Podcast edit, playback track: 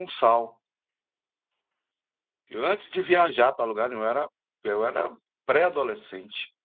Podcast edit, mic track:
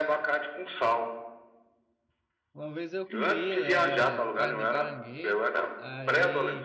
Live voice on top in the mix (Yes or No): No